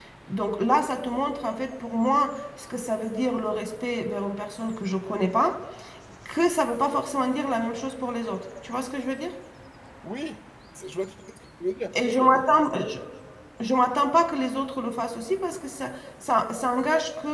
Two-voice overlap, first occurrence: none

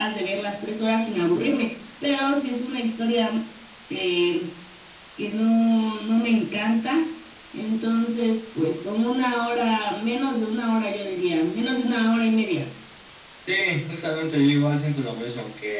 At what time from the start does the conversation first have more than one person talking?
none

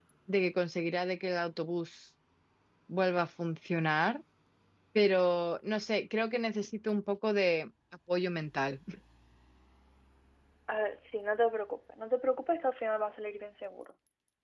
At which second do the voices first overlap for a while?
none

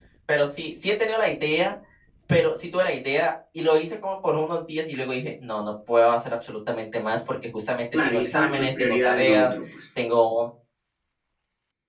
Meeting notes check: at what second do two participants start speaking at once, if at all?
7.9 s

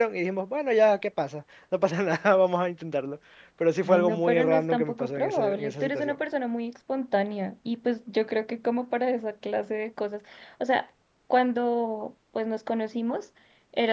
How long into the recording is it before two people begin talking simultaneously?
3.8 s

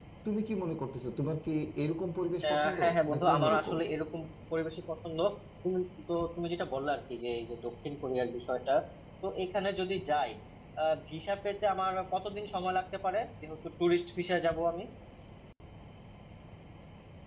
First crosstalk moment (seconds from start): 2.4 s

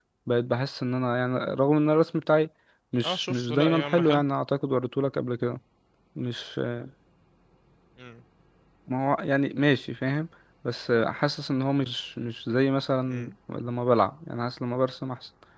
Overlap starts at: 3.0 s

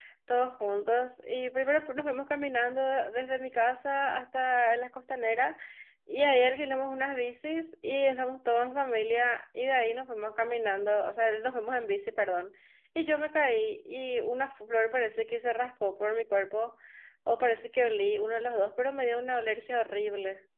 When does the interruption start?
none

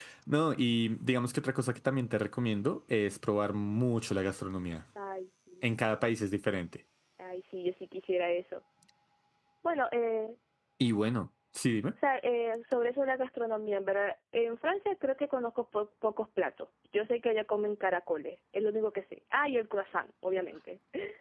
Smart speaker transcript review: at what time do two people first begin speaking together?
none

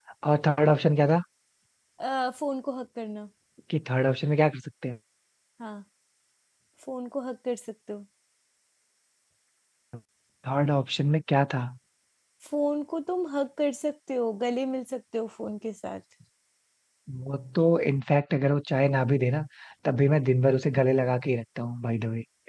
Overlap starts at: none

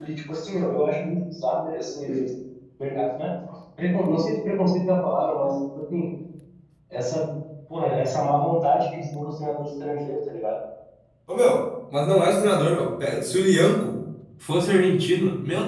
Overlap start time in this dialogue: none

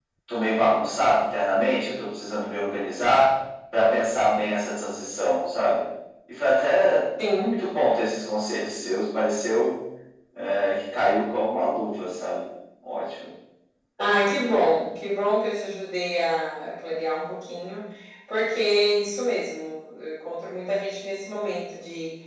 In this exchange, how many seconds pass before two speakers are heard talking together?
none

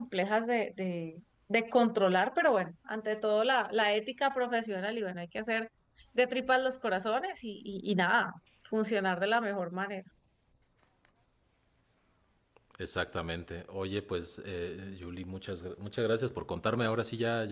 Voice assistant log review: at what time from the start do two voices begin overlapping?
none

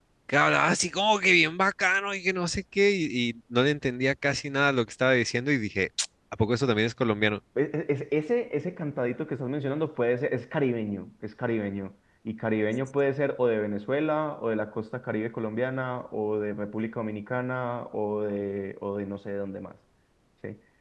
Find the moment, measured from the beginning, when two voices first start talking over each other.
none

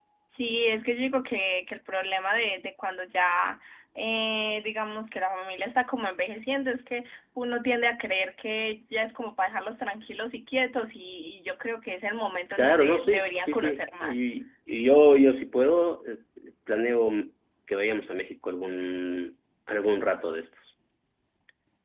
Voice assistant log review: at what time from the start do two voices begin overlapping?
12.5 s

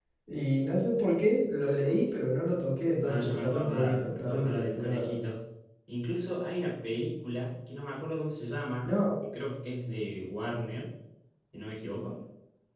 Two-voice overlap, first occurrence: 3.0 s

